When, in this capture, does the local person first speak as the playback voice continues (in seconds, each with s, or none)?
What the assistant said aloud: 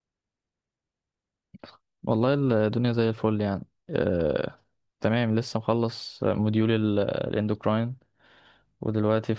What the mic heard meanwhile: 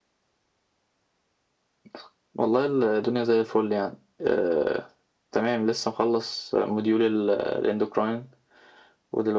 none